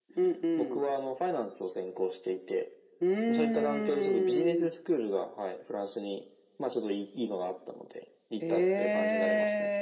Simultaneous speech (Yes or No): Yes